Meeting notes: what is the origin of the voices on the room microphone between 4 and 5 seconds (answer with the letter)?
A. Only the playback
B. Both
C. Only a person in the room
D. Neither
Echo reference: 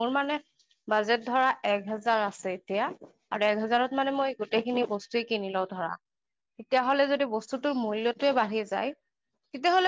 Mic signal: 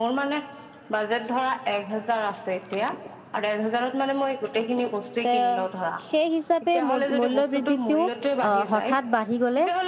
A